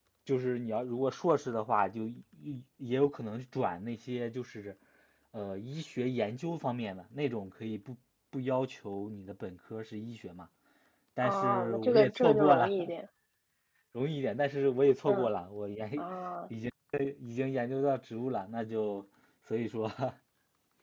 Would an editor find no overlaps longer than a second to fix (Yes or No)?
No